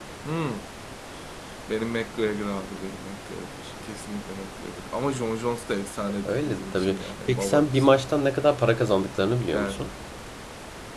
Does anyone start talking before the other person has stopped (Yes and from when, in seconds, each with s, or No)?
Yes, from 6.2 s